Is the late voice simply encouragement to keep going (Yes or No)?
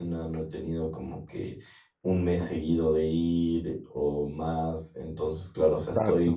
Yes